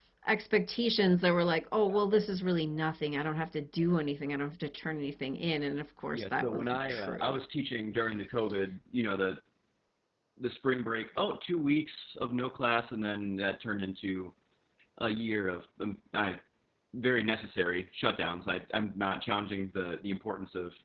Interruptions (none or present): present